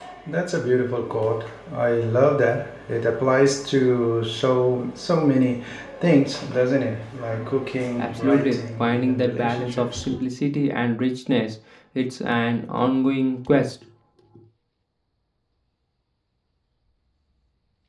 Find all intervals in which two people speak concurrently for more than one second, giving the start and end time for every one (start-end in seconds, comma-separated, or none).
8.0-10.1